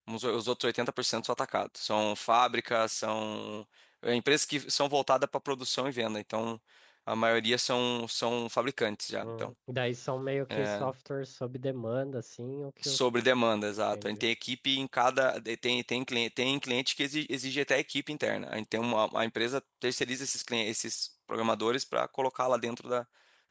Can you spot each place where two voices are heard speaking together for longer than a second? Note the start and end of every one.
none

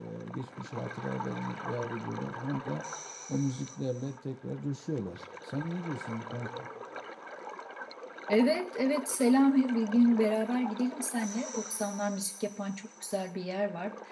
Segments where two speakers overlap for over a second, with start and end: none

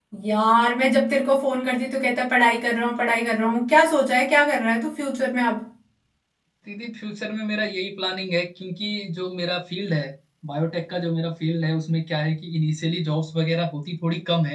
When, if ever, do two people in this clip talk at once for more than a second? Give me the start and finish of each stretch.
none

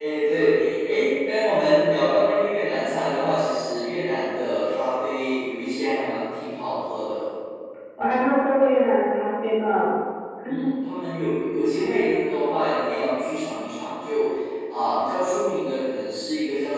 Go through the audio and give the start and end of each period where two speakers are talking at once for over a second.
none

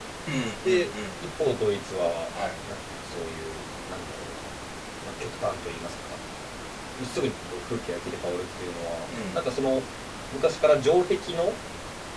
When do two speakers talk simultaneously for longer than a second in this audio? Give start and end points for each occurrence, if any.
none

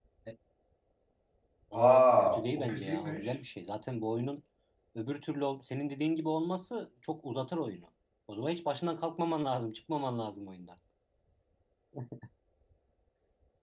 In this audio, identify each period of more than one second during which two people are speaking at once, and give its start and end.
1.7-3.3

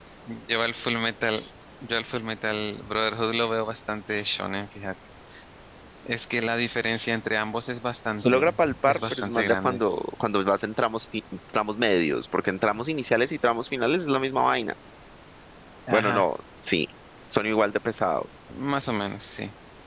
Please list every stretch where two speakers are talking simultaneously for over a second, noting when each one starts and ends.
8.2-9.8

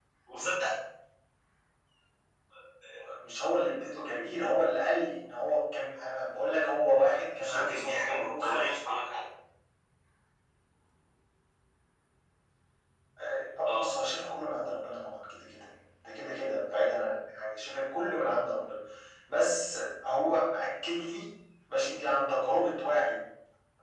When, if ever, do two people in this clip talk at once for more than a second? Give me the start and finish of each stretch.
7.4-8.6

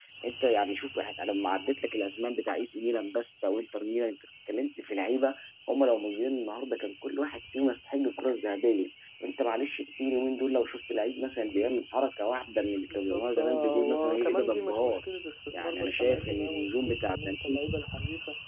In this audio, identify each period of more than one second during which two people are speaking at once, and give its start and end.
12.9-15.0, 15.6-17.4

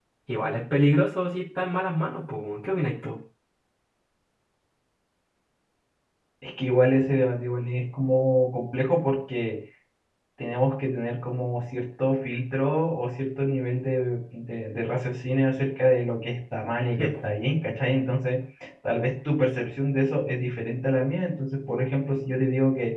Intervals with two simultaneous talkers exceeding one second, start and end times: none

